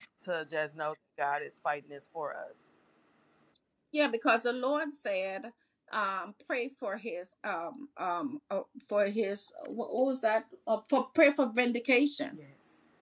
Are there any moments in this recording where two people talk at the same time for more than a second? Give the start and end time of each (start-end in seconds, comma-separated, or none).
none